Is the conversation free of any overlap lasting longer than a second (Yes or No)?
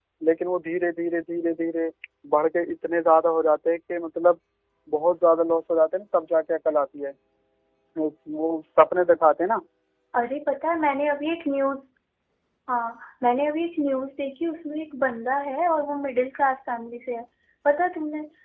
Yes